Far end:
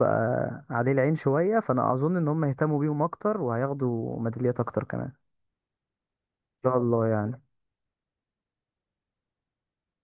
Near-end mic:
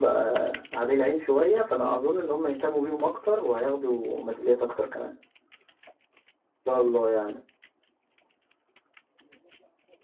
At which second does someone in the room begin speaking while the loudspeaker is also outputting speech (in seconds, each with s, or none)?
none